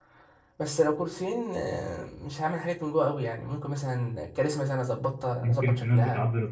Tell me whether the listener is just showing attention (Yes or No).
No